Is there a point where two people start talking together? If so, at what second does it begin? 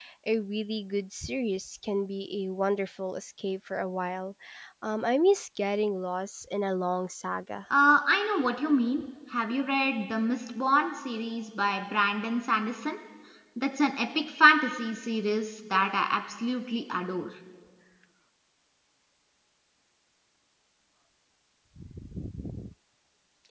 none

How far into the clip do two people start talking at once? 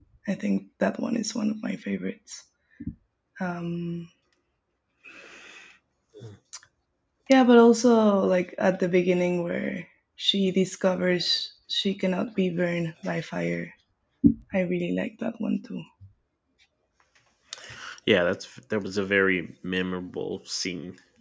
none

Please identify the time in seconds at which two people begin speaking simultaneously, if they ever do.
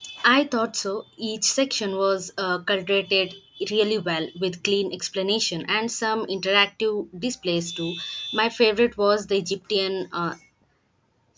none

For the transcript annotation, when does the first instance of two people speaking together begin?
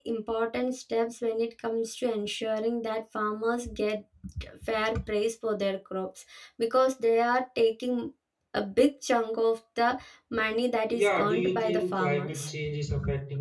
10.9 s

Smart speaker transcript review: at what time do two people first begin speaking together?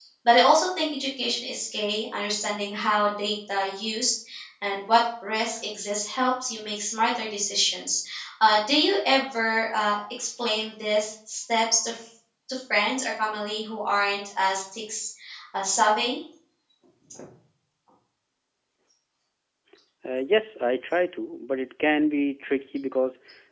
none

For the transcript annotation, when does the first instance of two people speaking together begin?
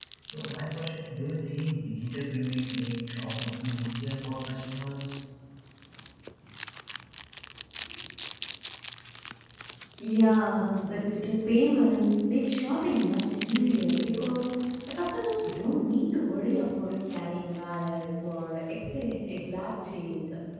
none

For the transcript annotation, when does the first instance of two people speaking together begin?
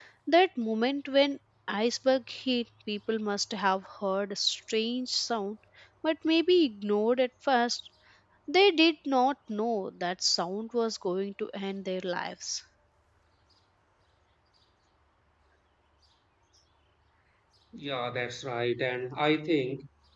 none

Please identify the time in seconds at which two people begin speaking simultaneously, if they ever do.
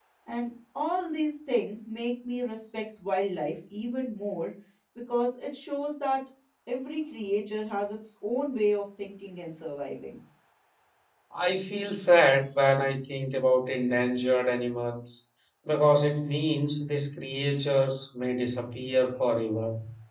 none

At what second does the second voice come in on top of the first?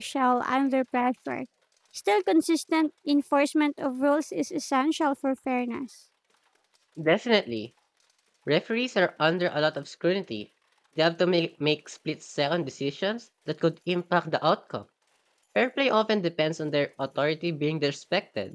none

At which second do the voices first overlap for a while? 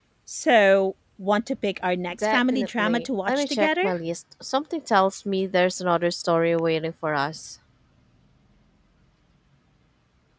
2.1 s

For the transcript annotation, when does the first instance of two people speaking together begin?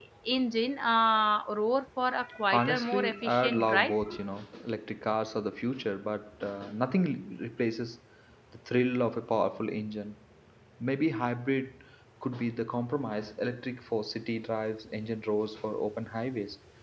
2.5 s

